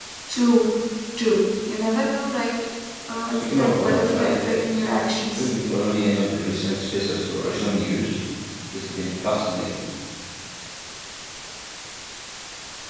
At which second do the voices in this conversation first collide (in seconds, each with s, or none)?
3.4 s